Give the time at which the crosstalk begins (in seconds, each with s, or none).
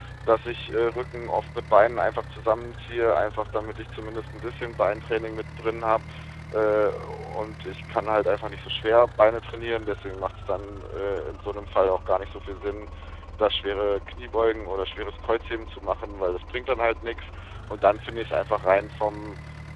none